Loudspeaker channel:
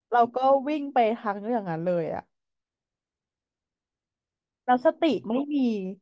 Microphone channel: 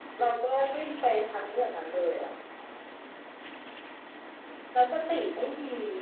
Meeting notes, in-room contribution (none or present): none